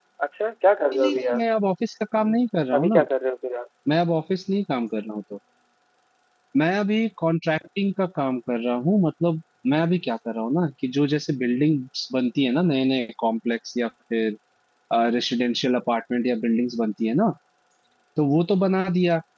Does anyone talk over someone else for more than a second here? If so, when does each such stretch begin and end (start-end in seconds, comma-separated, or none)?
none